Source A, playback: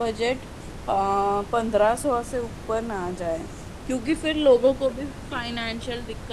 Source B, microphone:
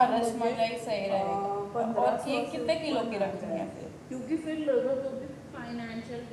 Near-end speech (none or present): present